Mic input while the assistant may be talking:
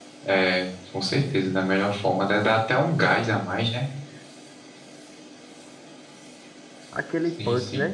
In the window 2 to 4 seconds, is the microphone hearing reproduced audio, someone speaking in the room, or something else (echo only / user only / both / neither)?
echo only